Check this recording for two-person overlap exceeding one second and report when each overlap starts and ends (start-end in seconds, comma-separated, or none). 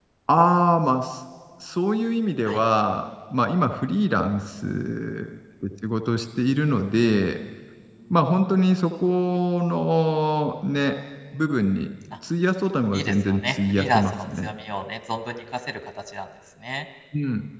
12.9-14.5